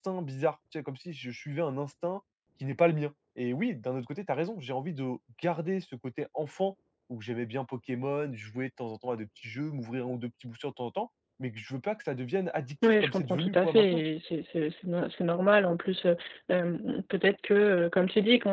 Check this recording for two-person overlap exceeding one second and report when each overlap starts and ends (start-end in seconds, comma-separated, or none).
12.8-14.0